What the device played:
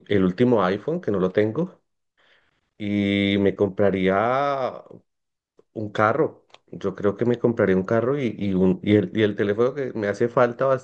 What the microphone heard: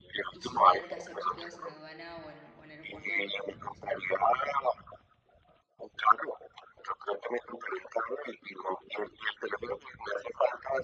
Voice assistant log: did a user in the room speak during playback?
Yes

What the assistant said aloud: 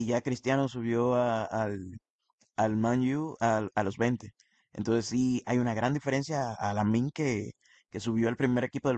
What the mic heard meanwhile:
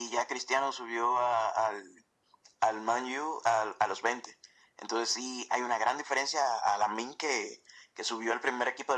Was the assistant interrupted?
No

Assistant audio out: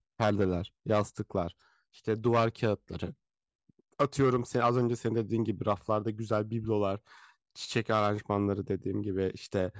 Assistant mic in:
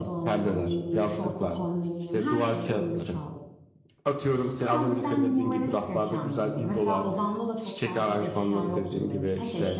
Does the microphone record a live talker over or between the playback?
Yes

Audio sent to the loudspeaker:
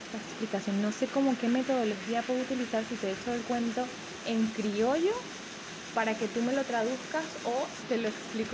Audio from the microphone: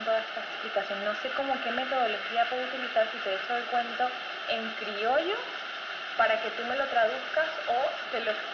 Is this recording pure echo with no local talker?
Yes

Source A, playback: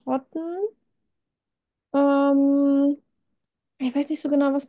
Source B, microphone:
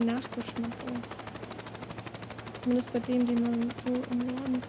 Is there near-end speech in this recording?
Yes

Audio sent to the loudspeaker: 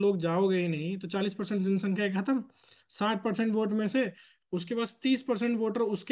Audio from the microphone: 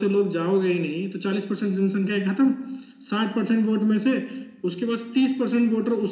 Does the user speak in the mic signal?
No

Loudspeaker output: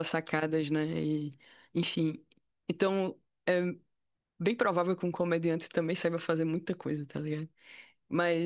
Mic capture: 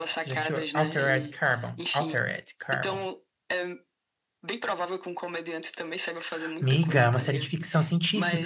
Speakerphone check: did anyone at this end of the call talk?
Yes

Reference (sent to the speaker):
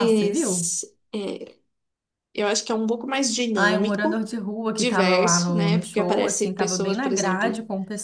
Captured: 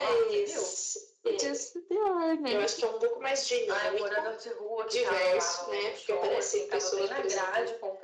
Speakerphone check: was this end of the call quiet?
No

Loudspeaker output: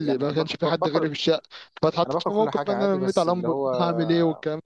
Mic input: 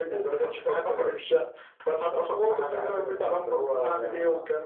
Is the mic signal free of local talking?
Yes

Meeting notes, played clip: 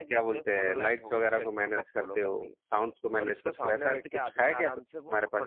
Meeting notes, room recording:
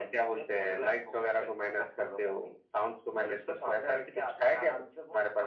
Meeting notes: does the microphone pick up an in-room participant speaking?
No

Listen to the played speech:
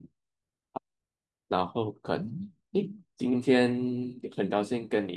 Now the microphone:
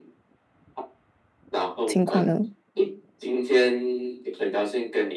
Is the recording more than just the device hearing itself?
Yes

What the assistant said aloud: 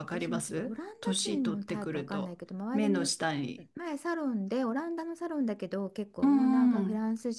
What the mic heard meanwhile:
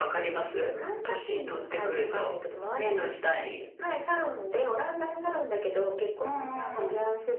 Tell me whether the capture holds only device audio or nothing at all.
Yes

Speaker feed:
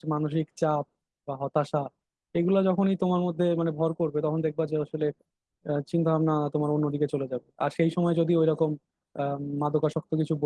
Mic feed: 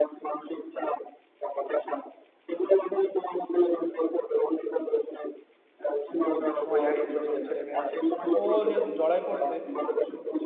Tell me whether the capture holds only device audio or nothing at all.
No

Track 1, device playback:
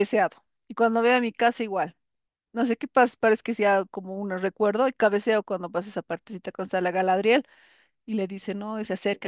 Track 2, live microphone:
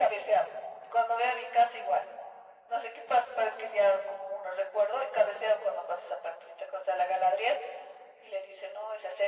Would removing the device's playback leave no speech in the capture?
Yes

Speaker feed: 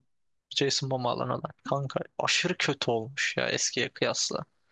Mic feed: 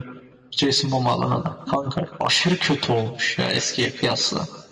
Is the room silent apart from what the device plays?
Yes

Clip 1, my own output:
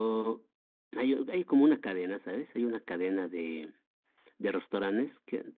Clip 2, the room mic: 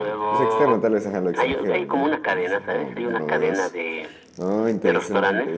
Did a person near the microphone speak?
Yes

